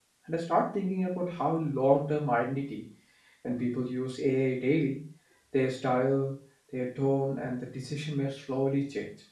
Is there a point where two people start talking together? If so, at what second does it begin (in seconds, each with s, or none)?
none